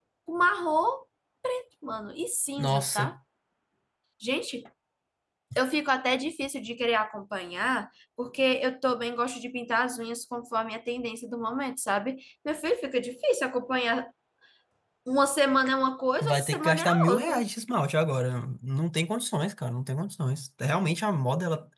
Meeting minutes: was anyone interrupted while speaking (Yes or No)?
Yes